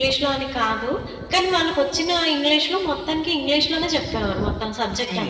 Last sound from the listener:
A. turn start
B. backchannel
A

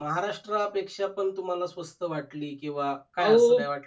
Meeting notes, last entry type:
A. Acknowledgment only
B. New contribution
B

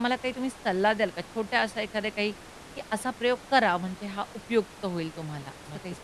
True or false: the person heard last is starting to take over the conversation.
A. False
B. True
B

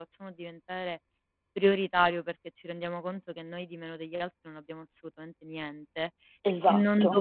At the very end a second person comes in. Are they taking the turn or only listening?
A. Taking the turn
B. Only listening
B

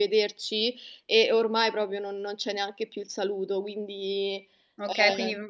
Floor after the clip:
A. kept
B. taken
B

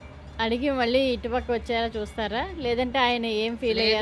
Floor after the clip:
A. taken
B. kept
A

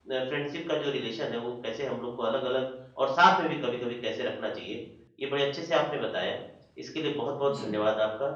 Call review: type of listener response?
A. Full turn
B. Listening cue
B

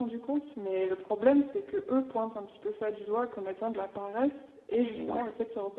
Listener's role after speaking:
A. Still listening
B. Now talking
A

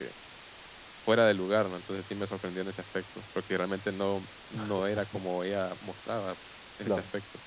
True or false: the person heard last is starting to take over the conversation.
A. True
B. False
A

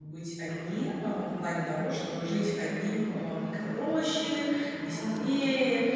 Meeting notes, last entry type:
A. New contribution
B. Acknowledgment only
B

